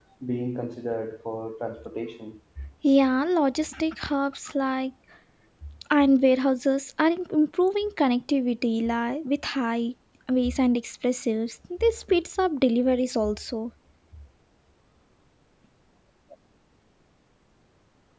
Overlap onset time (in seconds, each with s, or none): none